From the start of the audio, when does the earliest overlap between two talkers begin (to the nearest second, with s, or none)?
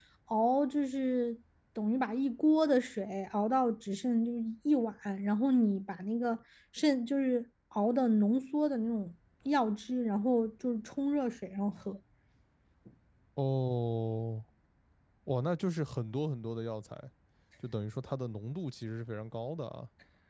none